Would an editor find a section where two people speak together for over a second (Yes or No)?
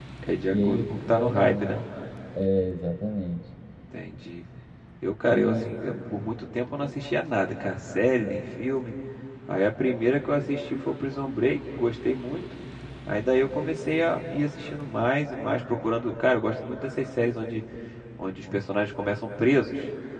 Yes